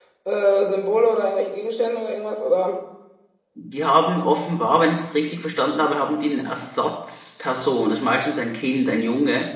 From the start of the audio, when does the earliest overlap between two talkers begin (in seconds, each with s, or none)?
none